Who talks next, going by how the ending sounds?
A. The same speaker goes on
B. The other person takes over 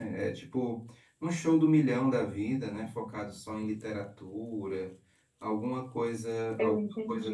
A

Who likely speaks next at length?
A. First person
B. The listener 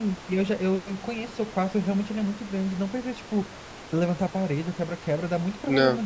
A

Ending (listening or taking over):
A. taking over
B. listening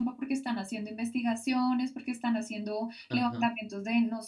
B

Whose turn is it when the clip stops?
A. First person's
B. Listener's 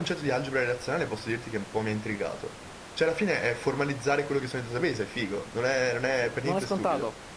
B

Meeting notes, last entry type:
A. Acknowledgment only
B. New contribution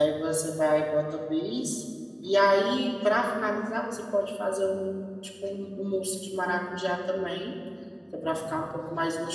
A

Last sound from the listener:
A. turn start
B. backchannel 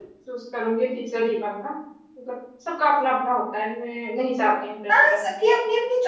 A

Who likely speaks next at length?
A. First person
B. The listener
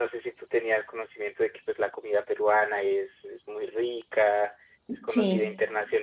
A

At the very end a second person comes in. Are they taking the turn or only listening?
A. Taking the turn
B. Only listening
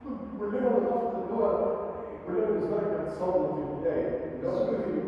B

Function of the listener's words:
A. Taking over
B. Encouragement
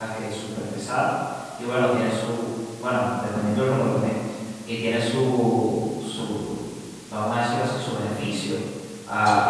B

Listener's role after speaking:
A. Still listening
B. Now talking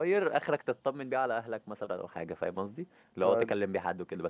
A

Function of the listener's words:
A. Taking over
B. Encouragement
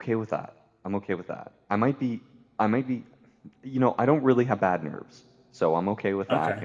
B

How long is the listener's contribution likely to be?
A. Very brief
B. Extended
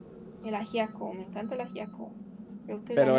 B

